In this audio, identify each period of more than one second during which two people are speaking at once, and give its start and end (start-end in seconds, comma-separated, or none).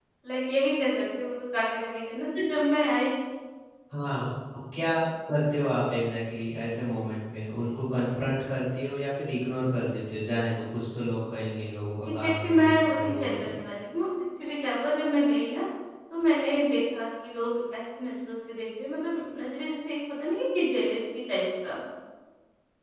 12.1-13.5